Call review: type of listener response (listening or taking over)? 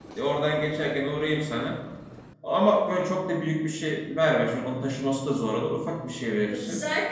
taking over